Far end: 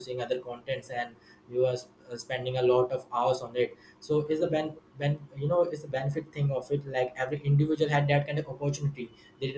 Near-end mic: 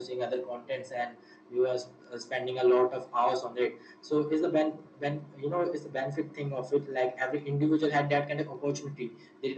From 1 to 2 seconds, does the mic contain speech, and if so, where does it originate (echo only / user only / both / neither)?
echo only